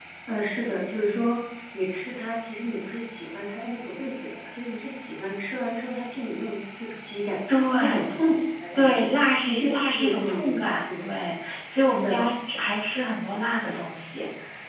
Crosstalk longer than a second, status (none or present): present